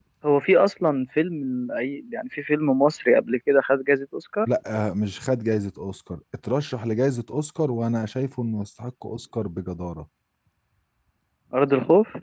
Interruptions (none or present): none